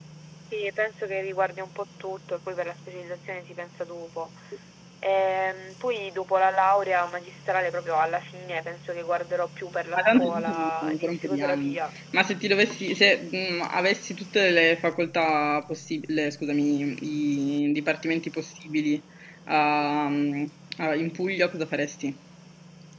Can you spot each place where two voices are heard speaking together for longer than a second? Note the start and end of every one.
10.0-11.8

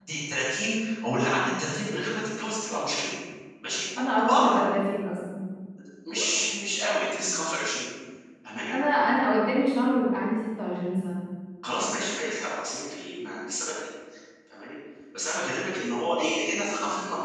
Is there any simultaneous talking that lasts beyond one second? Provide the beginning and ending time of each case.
none

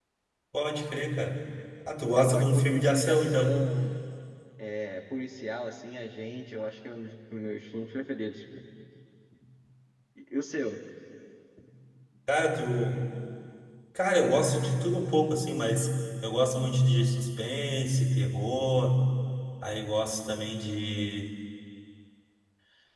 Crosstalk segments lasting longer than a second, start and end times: 2.1-3.6

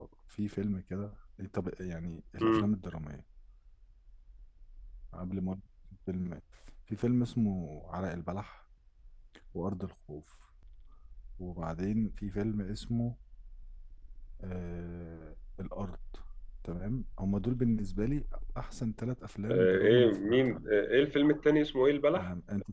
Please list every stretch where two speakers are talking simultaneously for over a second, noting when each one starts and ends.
19.5-20.7

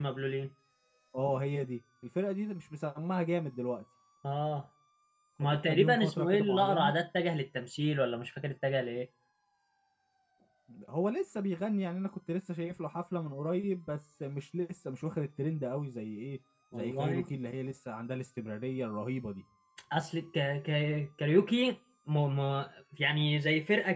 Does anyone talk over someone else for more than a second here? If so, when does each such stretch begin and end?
5.4-6.9

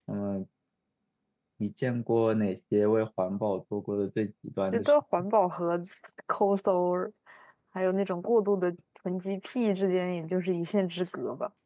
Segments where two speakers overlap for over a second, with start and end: none

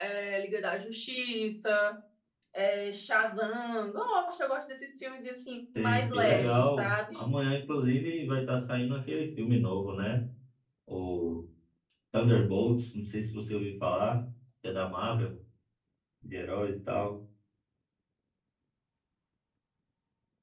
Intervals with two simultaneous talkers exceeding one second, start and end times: 5.8-7.0

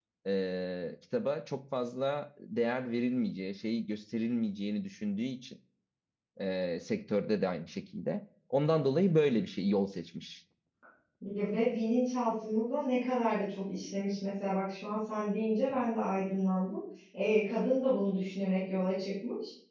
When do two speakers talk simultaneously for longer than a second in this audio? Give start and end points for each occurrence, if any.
none

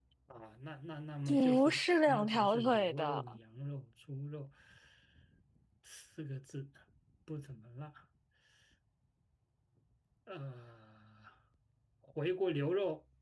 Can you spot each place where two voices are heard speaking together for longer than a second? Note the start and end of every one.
1.3-3.2

